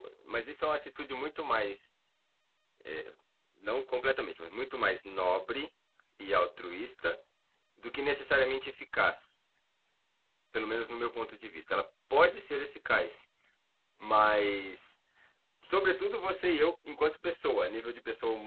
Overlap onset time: none

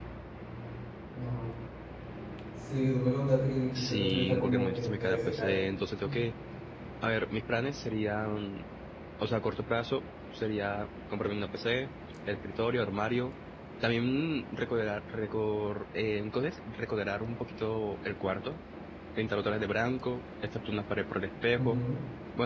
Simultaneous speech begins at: 3.7 s

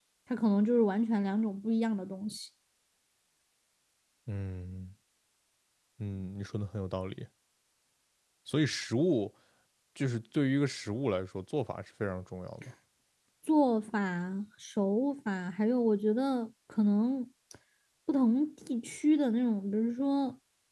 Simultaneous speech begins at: none

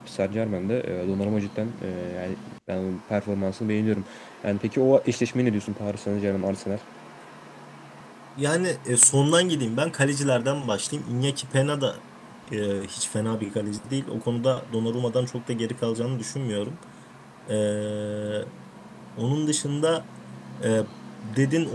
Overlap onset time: none

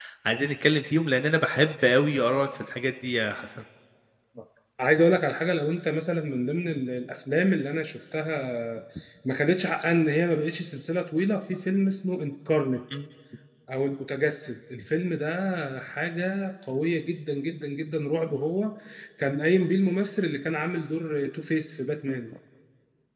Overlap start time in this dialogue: none

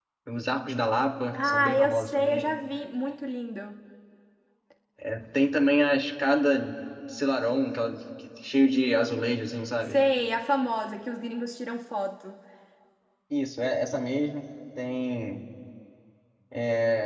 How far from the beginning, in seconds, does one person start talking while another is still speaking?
1.3 s

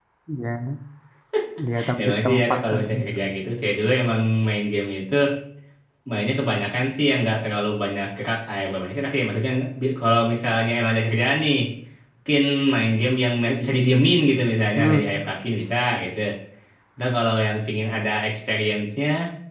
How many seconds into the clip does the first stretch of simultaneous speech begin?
2.0 s

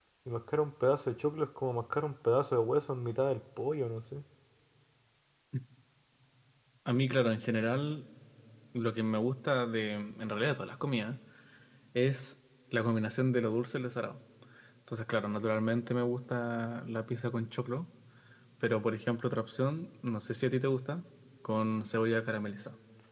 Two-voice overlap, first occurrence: none

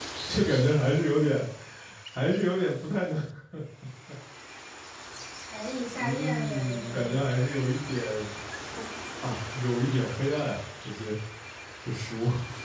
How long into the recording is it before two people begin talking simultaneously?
5.9 s

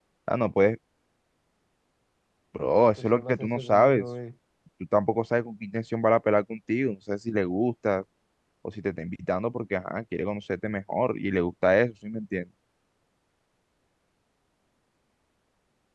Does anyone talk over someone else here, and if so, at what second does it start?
2.8 s

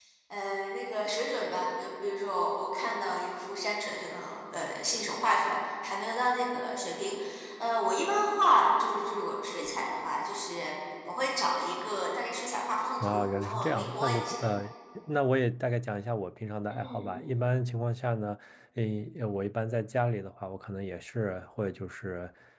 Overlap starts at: 13.0 s

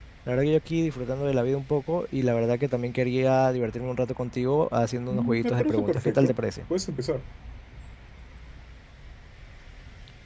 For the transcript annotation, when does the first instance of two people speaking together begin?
5.1 s

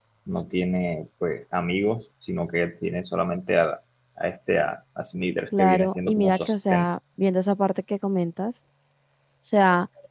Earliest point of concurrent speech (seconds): 5.5 s

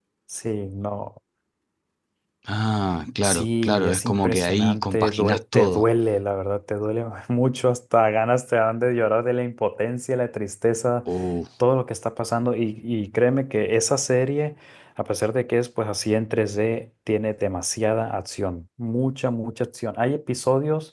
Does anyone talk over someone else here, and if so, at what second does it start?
3.2 s

